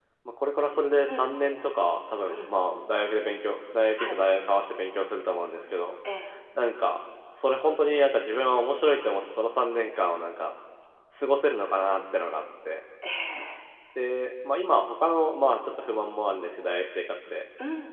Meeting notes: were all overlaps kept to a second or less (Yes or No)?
Yes